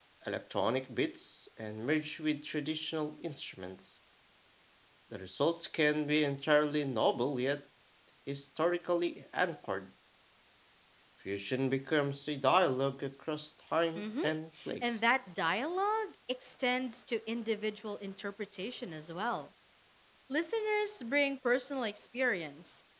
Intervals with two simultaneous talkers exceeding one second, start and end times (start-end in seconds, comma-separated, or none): none